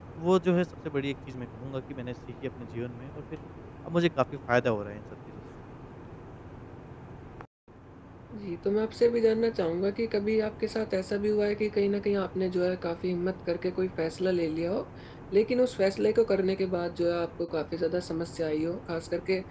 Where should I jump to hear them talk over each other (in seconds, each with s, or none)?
none